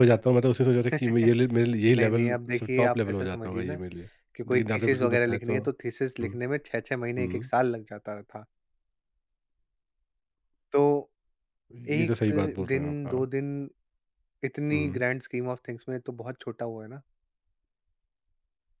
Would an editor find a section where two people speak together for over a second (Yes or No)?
Yes